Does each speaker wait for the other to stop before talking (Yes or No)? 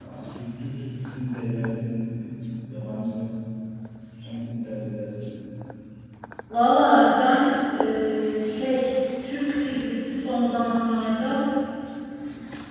Yes